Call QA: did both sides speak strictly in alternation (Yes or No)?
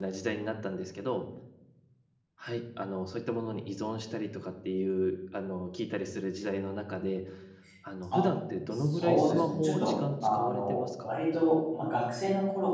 No